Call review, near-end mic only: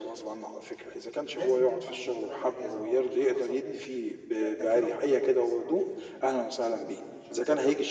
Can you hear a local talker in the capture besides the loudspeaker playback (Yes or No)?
Yes